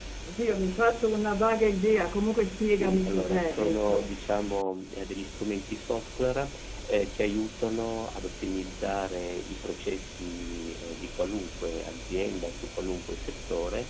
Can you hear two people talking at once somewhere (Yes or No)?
Yes